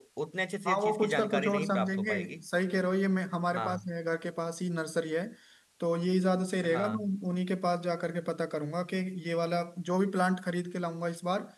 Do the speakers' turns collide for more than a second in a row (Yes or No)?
Yes